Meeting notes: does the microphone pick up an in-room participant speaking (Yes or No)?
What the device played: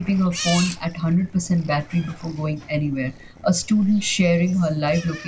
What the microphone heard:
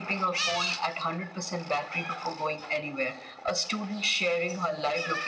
No